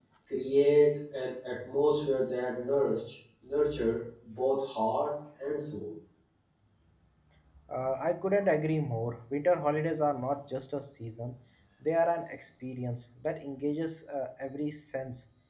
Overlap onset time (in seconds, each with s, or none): none